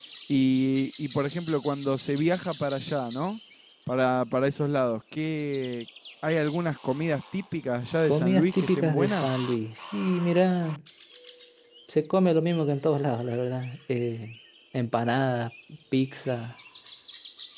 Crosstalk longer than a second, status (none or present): present